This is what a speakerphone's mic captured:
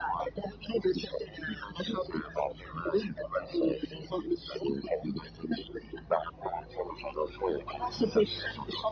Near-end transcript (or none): none